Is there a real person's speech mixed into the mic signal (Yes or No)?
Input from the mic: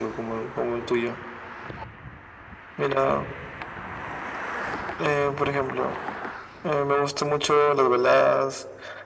No